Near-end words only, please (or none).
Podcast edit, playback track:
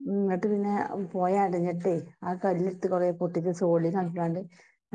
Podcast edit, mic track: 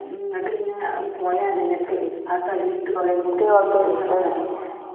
എത്രയോ കിട്ടാനുണ്ട്.